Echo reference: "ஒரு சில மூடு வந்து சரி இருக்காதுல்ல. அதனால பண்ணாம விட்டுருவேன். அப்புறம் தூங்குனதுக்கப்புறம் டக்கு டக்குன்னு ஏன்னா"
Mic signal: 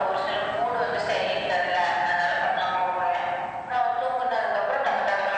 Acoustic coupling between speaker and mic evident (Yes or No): Yes